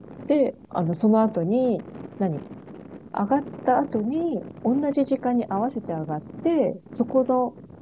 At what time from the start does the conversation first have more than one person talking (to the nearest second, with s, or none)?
none